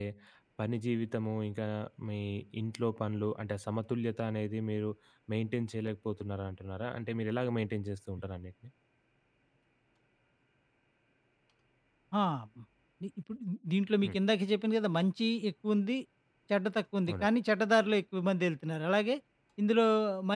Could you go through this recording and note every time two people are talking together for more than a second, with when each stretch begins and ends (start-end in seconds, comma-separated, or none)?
none